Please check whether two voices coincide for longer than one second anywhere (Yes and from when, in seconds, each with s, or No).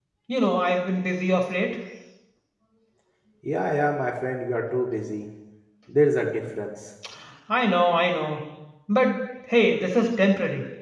No